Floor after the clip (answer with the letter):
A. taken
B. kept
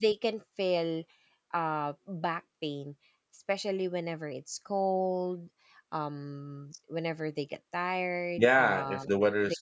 A